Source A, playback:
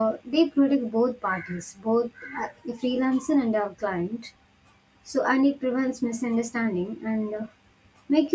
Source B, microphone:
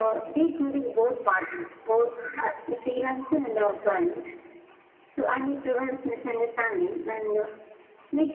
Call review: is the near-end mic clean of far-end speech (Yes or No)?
No